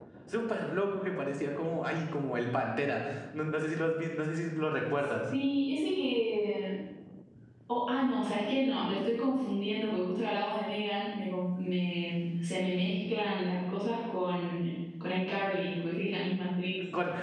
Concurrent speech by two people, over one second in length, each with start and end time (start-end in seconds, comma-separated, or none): none